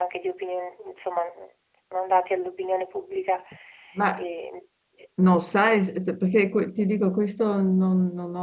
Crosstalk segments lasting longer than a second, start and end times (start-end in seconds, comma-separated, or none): none